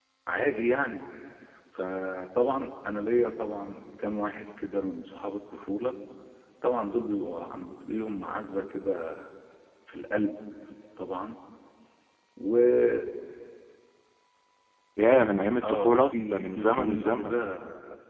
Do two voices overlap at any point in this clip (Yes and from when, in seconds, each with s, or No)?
Yes, from 15.6 s